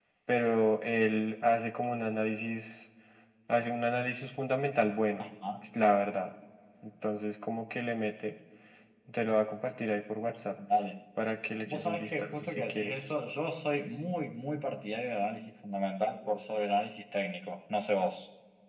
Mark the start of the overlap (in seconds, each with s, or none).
11.7 s